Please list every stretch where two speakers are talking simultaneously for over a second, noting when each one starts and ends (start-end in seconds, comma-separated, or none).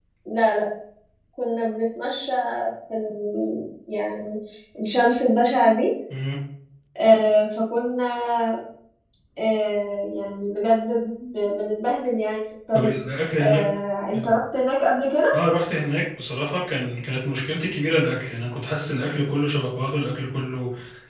none